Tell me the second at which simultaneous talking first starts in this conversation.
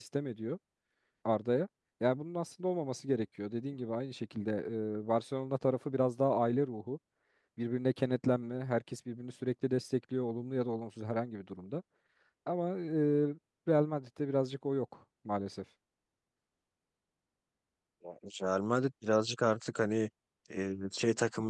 none

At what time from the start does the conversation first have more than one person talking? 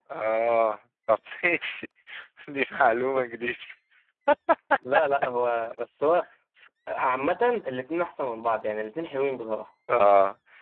none

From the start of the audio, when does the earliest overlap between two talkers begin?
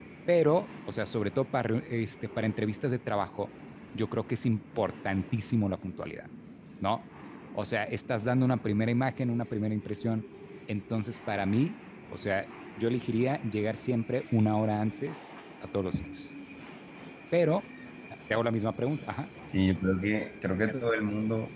none

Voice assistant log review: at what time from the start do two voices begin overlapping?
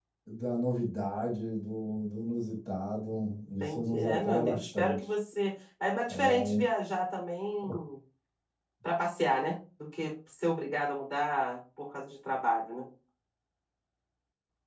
3.6 s

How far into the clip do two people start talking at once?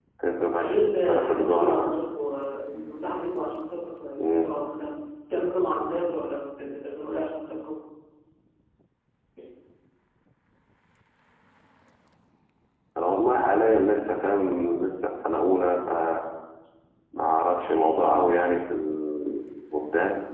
0.6 s

